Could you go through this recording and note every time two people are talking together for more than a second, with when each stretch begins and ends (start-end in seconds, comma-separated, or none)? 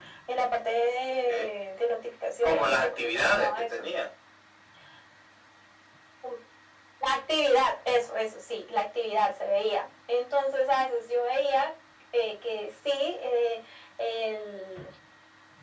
2.4-3.9